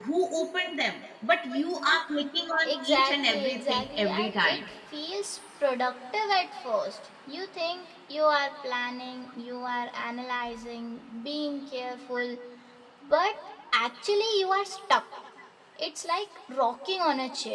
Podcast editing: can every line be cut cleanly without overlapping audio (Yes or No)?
No